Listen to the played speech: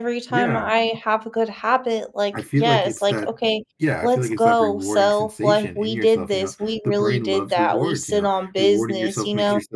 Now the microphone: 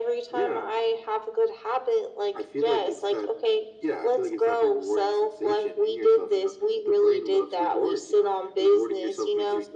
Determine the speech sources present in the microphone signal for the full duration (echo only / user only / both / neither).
echo only